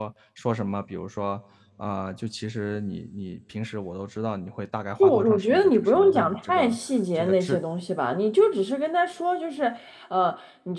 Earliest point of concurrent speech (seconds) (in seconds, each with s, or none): 5.0 s